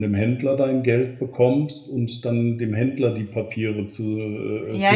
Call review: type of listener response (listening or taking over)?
taking over